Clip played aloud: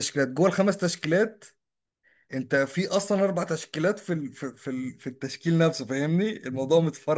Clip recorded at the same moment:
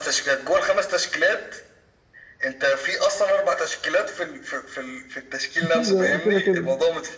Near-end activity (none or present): present